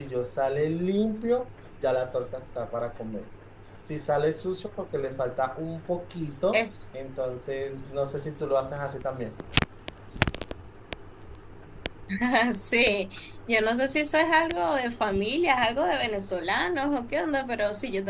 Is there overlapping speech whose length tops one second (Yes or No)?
No